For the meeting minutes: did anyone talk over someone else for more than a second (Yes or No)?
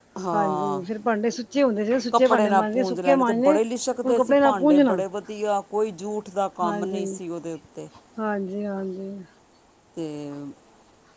Yes